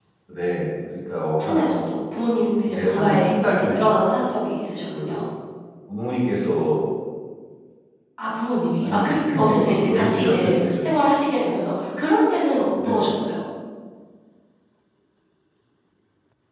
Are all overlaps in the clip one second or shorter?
No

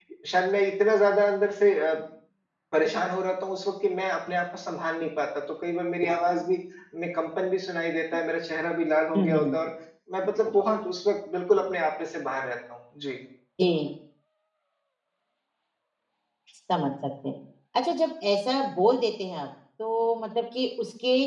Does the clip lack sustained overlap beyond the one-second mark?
Yes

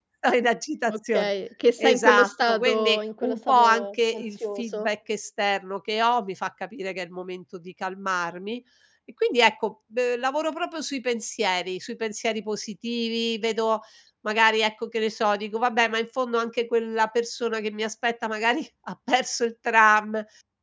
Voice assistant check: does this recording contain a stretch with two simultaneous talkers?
Yes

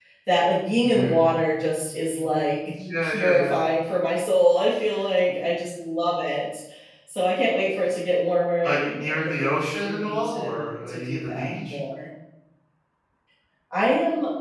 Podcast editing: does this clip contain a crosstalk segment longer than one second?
Yes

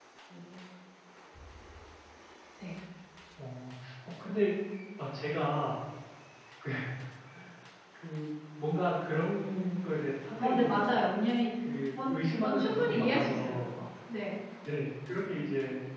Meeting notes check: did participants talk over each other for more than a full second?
Yes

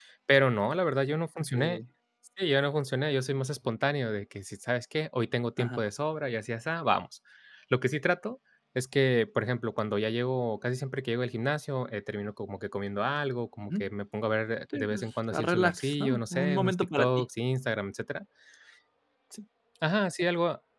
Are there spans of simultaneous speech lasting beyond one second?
Yes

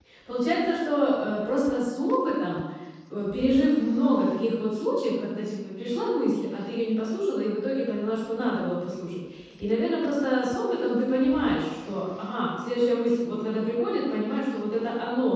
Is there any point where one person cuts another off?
No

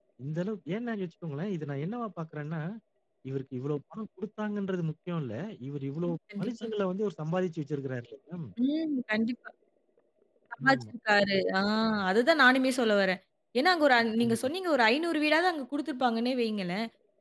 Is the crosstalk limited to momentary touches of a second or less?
Yes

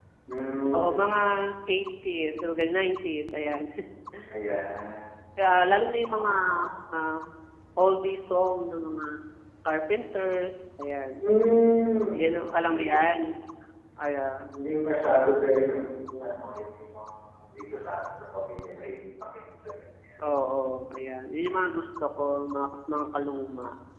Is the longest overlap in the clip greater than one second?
No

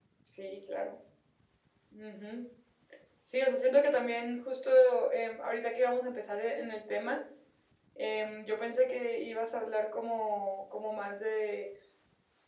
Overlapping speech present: No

